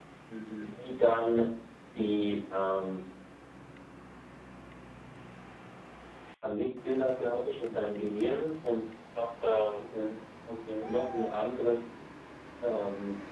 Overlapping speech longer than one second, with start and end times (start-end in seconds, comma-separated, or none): none